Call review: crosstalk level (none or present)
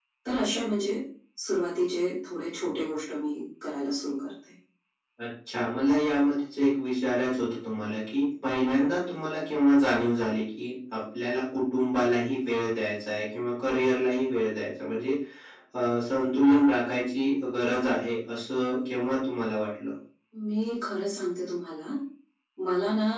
none